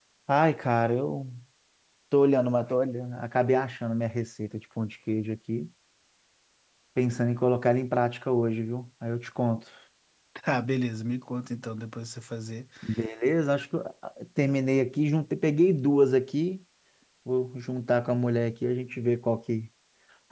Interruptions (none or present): none